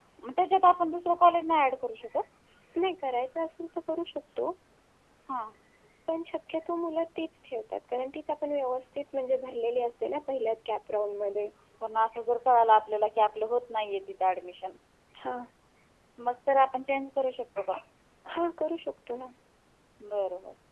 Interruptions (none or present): none